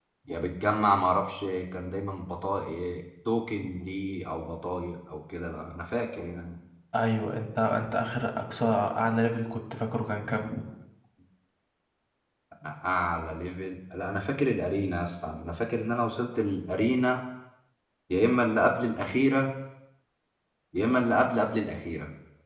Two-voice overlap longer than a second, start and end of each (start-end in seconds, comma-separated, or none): none